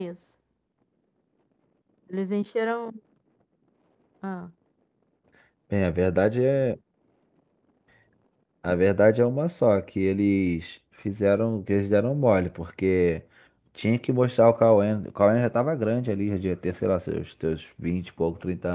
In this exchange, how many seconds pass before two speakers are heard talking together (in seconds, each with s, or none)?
none